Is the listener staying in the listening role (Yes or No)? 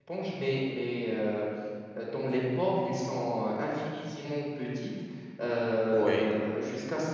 Yes